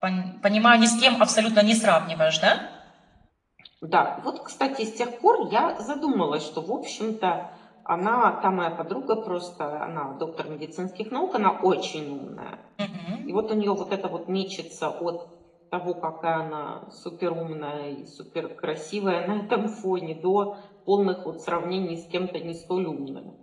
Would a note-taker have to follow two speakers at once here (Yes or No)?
No